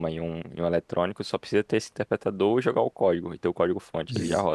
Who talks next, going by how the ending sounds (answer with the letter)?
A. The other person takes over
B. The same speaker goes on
A